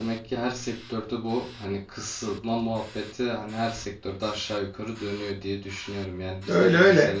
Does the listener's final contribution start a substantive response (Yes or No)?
No